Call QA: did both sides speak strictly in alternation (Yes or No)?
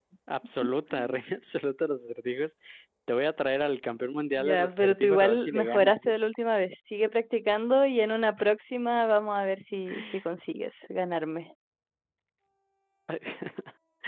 No